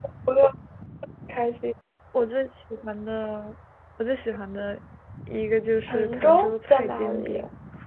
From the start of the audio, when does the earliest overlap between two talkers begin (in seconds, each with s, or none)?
5.9 s